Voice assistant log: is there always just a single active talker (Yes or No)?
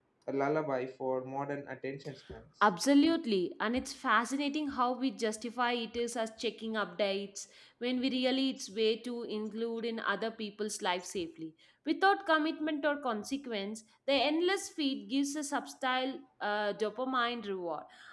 Yes